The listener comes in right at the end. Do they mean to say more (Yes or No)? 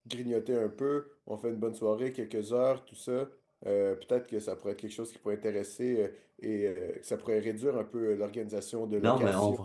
Yes